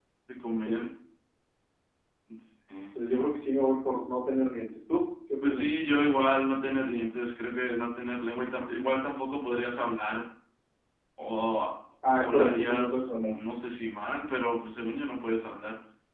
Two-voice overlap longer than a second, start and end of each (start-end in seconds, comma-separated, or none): 12.1-13.3